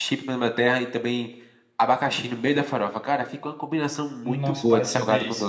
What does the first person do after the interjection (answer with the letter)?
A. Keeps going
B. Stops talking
B